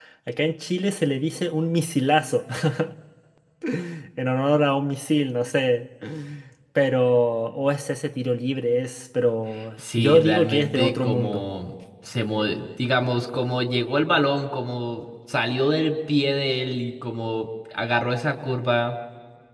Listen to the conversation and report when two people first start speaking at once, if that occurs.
9.8 s

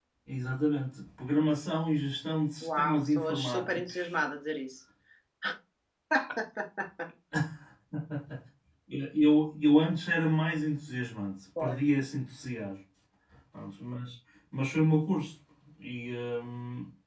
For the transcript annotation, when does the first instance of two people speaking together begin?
2.6 s

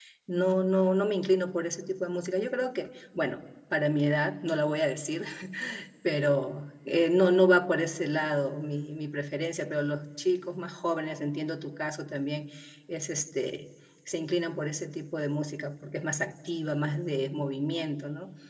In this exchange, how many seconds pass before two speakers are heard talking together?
none

